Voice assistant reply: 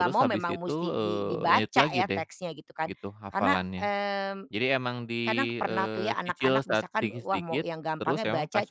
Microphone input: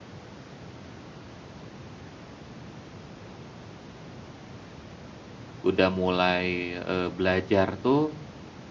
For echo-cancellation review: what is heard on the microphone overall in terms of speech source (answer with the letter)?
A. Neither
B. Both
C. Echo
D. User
D